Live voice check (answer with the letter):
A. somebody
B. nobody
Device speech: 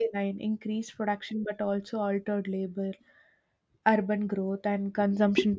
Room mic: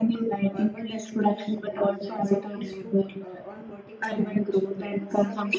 A